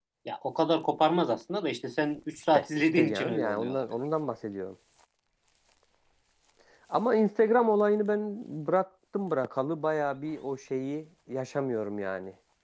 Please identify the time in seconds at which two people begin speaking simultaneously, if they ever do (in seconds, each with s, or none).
2.5 s